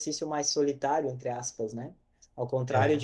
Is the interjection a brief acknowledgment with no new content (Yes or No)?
Yes